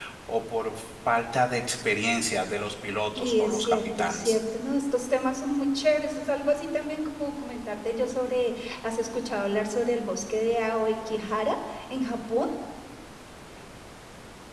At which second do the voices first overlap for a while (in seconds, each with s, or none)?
3.2 s